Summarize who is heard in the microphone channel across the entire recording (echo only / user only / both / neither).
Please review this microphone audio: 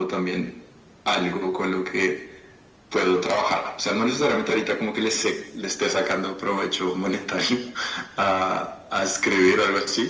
echo only